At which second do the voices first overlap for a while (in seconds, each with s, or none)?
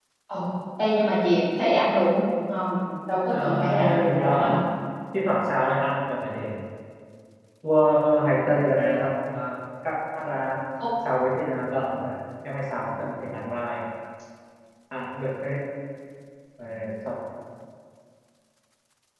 3.3 s